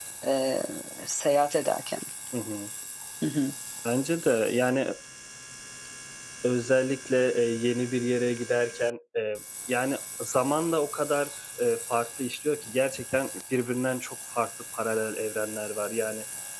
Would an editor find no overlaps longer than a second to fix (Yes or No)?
Yes